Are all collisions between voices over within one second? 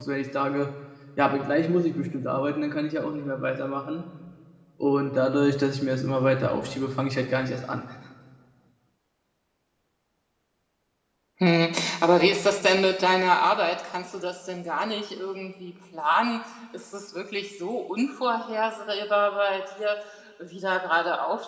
Yes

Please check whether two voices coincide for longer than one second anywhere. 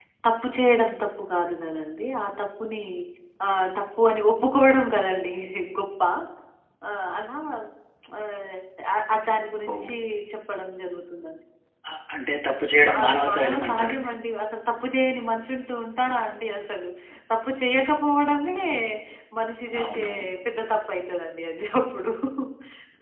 Yes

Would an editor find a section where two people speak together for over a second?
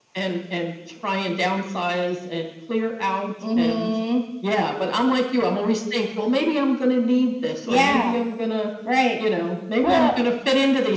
No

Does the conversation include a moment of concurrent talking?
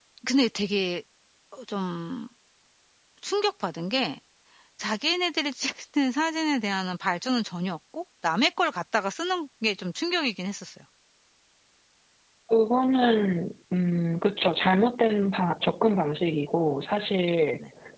No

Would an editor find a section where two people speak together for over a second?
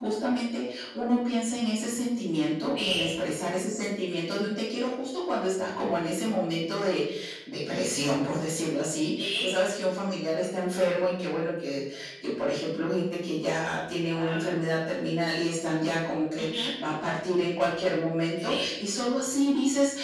No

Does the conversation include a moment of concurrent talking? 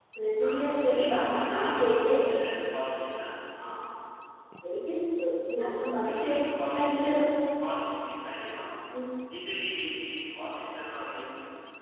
Yes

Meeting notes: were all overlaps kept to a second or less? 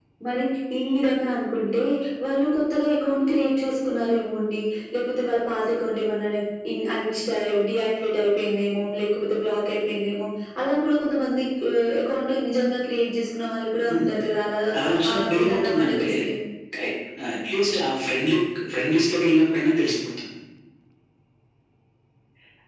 No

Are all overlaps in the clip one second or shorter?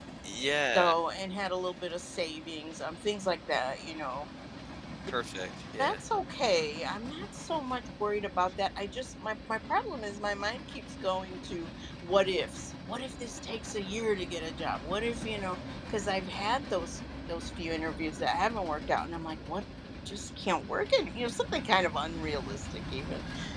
Yes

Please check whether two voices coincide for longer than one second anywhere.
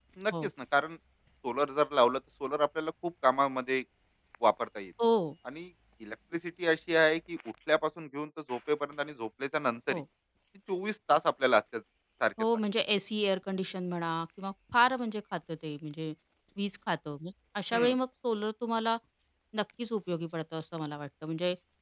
No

